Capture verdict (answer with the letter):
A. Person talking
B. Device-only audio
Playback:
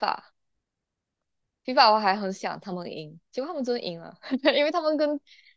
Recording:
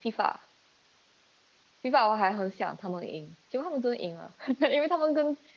B